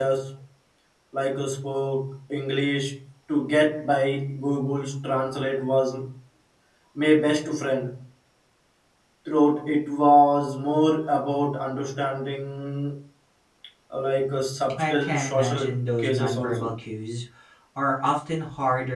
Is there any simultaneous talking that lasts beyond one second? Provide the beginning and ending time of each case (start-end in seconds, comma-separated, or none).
14.8-16.7